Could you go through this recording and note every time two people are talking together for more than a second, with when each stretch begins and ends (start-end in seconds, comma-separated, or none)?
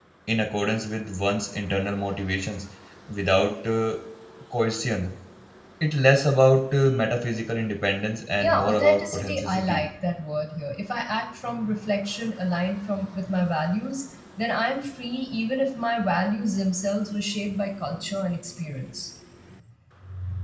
8.4-9.8